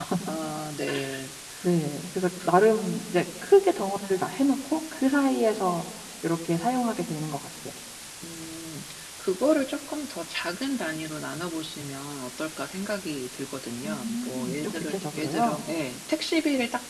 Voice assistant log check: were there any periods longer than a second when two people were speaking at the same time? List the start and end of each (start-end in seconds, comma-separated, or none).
13.8-15.7